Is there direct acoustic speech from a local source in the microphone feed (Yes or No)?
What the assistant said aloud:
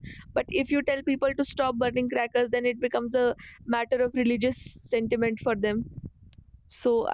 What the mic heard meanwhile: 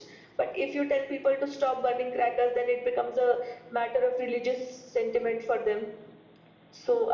No